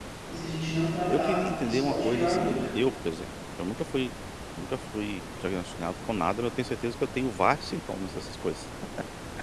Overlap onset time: 1.1 s

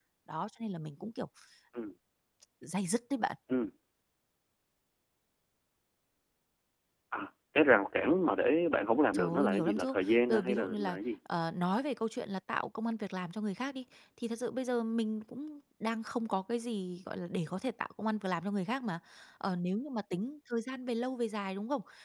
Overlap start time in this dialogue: 9.1 s

